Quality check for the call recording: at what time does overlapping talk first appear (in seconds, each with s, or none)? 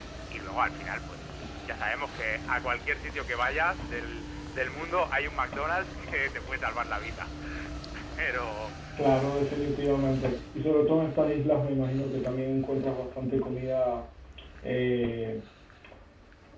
none